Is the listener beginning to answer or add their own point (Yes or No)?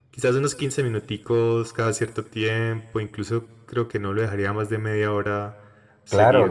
Yes